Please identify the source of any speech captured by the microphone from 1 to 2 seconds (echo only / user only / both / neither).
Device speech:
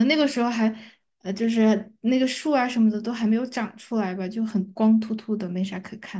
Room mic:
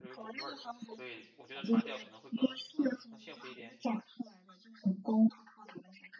both